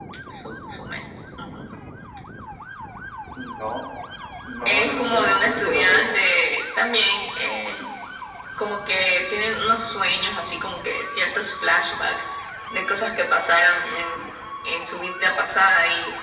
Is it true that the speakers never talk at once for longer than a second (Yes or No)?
No